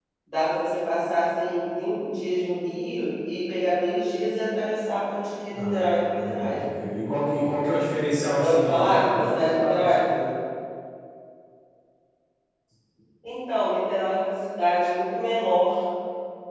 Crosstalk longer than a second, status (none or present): present